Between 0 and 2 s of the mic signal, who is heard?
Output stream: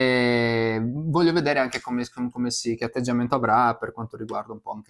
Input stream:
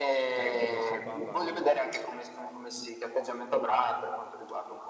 both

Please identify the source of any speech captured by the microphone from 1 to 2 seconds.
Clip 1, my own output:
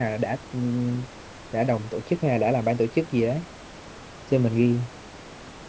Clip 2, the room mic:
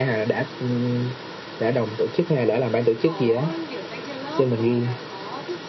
echo only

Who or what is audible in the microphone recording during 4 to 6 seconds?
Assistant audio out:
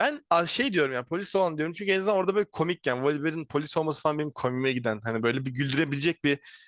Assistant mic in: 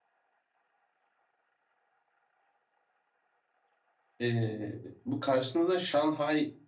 user only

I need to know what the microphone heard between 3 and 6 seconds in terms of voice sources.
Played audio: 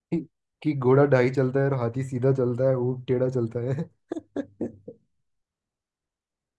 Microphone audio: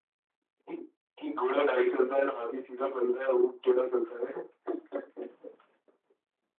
echo only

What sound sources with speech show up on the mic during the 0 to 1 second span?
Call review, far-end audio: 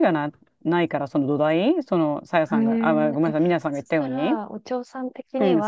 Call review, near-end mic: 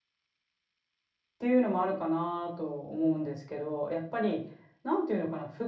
neither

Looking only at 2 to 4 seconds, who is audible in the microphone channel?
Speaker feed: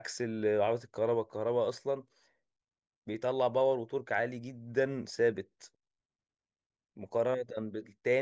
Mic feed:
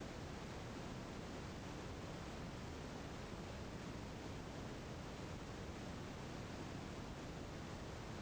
neither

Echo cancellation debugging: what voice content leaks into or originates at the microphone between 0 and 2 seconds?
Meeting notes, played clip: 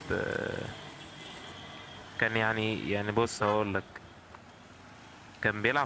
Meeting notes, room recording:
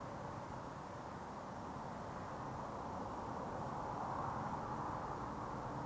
neither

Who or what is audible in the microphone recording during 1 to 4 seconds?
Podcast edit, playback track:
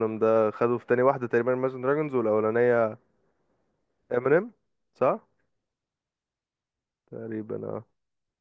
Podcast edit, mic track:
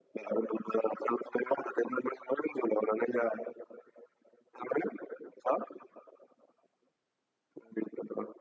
echo only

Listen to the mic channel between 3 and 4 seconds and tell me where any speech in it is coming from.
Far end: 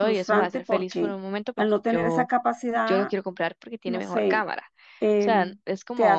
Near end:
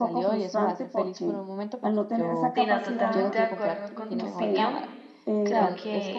both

